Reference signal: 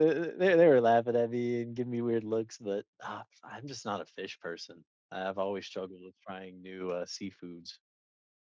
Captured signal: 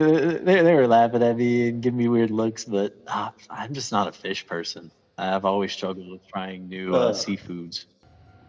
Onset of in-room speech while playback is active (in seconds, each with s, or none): 6.9 s